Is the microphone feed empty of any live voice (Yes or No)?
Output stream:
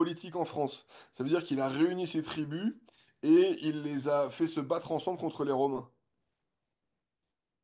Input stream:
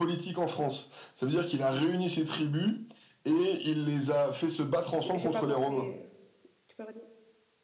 No